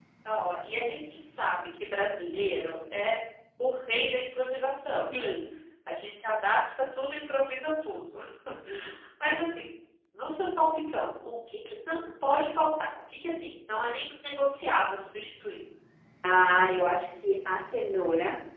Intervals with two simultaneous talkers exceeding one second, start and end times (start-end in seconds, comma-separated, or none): none